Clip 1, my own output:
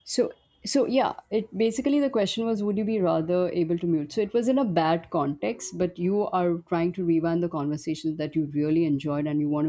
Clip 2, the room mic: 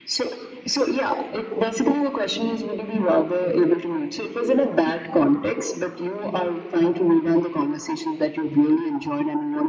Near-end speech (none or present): none